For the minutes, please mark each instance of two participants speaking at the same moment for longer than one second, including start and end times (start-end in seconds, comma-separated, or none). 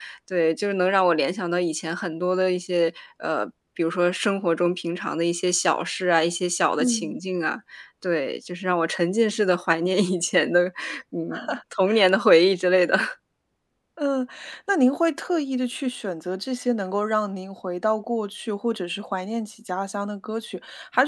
none